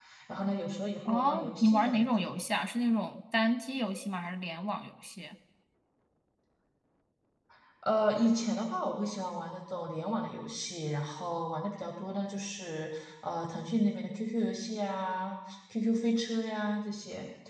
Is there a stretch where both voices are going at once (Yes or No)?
Yes